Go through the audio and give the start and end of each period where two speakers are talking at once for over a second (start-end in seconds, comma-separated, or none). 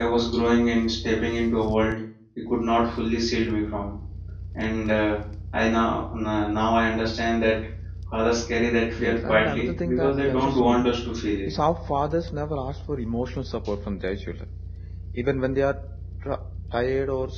9.0-10.9